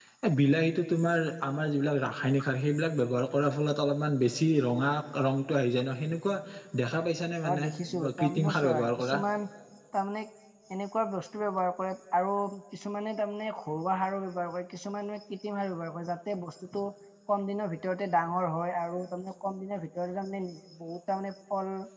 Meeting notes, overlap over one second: present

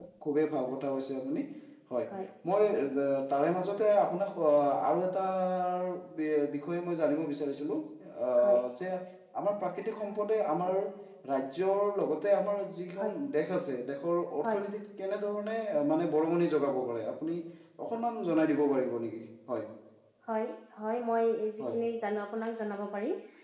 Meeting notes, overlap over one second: none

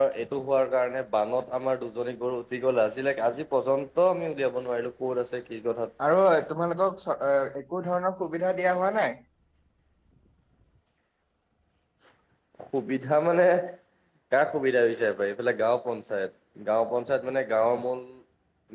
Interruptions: none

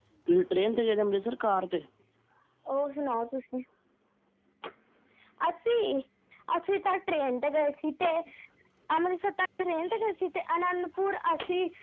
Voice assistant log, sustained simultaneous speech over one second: none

